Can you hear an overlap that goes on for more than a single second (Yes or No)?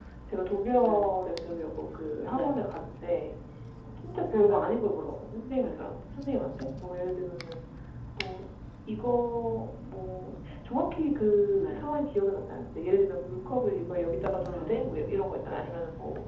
No